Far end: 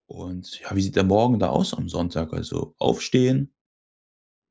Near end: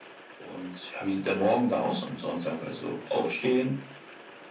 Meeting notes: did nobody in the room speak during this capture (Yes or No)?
Yes